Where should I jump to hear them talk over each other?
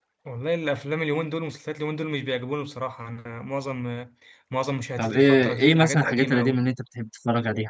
5.0 s

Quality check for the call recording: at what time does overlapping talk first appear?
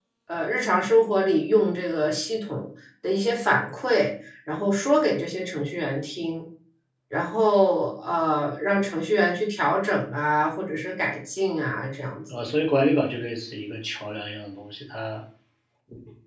none

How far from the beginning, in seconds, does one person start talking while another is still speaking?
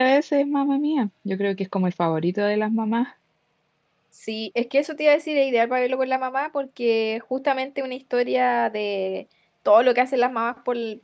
none

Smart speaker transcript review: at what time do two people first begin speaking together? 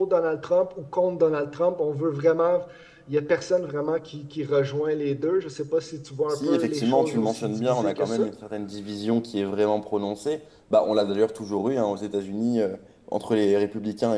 6.3 s

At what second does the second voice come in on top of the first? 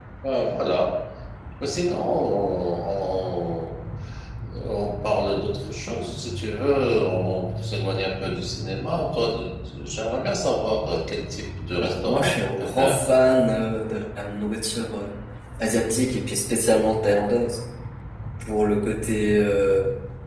11.8 s

